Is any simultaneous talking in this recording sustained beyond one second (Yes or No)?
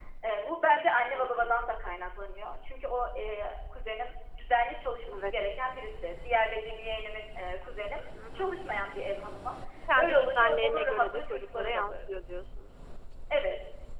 Yes